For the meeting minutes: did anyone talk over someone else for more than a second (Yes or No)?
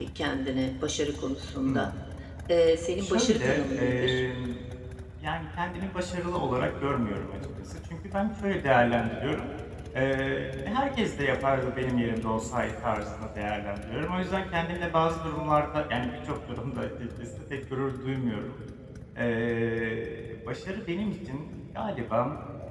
Yes